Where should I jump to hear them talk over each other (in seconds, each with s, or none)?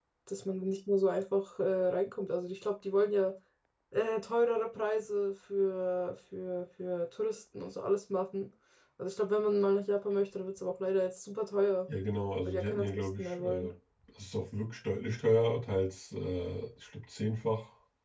12.4 s